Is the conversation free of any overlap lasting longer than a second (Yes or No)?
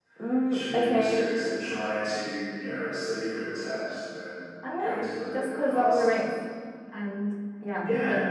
No